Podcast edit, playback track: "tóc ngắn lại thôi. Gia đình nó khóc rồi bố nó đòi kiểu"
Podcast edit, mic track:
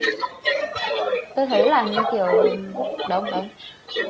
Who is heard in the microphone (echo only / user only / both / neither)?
both